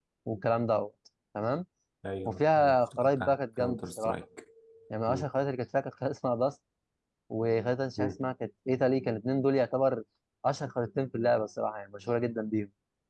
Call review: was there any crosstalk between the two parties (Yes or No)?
Yes